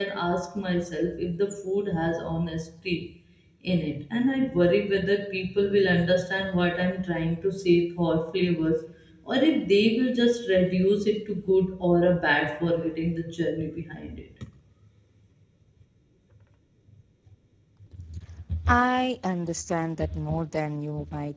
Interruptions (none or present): none